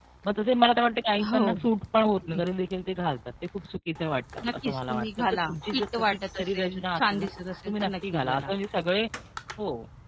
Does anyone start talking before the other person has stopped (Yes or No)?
Yes